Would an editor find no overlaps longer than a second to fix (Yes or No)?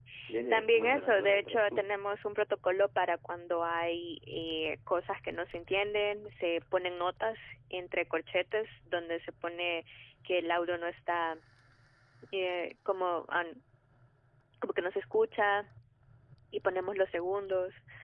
No